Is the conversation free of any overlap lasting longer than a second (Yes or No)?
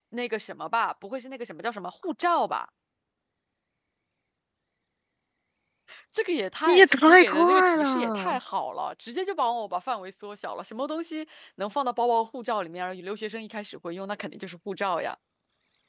No